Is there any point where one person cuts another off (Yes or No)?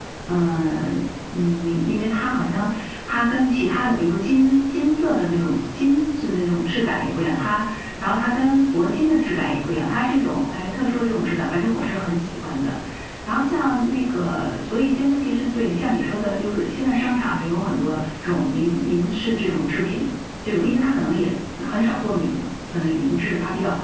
No